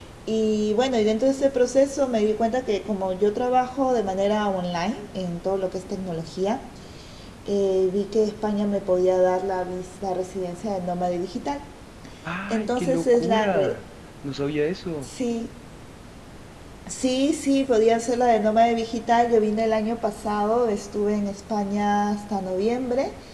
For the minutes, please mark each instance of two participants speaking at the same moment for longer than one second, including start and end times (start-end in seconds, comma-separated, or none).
12.5-13.8